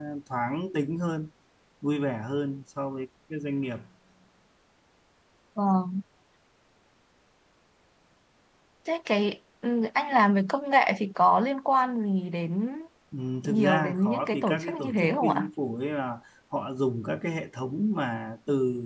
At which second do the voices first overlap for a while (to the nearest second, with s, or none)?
13 s